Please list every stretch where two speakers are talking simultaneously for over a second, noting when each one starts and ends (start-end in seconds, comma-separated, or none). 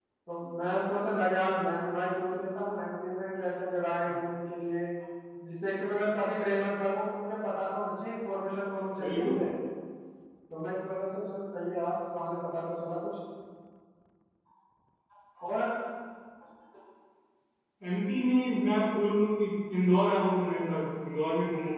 none